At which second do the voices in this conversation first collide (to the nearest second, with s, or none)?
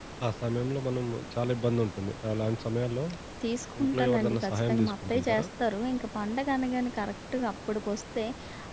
4 s